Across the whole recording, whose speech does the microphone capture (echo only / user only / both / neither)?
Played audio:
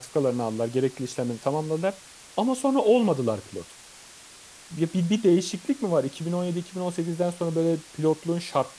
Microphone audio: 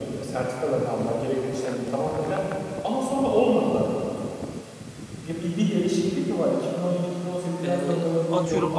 both